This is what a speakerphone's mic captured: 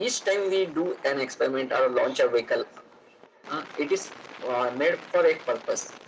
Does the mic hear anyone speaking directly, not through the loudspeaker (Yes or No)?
No